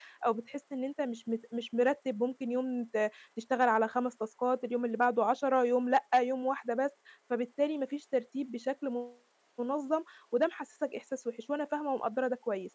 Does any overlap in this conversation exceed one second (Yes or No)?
No